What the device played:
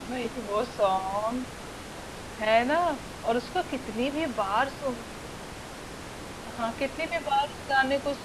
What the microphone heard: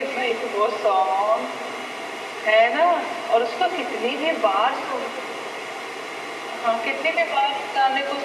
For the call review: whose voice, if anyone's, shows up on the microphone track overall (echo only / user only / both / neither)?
echo only